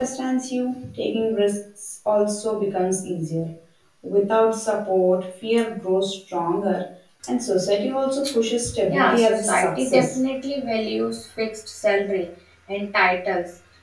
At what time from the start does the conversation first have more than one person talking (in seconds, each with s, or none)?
8.9 s